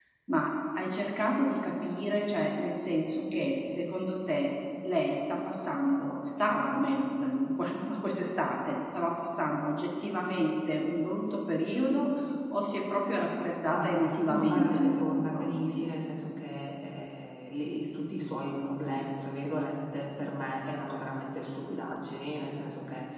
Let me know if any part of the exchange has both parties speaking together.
Yes, from 13.7 s

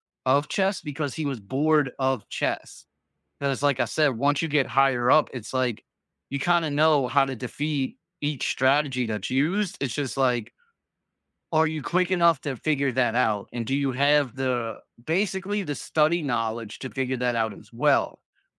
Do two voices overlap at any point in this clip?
No

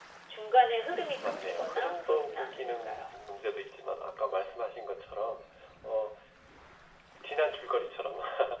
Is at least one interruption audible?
Yes, from 1.2 s

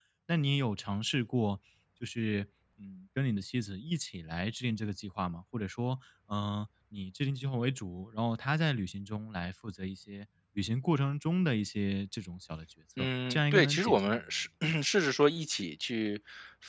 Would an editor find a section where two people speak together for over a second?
Yes, from 13.0 s

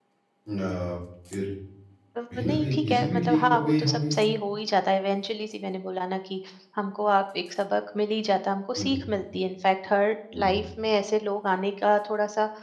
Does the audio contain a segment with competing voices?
Yes, from 2.4 s

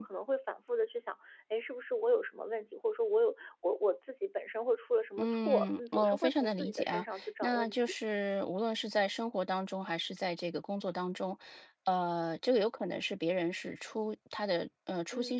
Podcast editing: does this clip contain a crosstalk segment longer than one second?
Yes, from 5.2 s

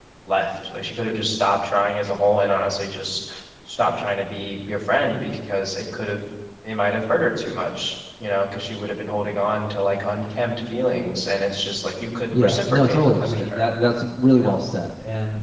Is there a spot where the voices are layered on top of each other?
Yes, from 12.3 s

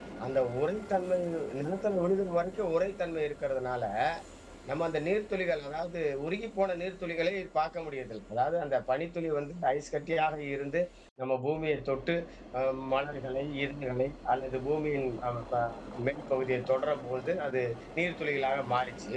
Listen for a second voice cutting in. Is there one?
No

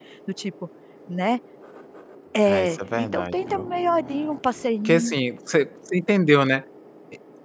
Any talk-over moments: Yes, from 2.5 s

